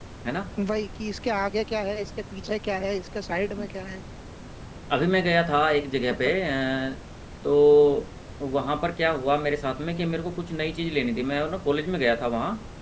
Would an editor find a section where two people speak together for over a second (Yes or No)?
No